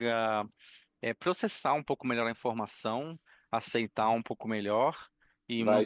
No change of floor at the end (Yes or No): Yes